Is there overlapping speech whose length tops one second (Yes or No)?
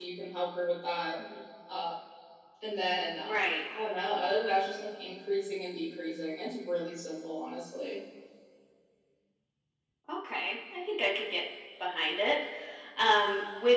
No